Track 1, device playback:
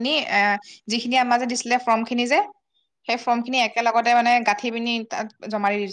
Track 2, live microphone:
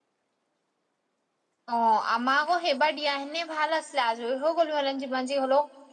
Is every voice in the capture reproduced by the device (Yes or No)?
No